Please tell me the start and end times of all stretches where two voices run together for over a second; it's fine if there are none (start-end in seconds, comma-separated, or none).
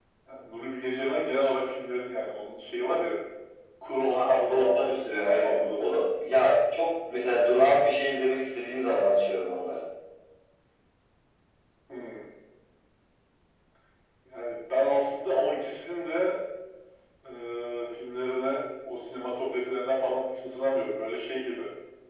4.1-6.0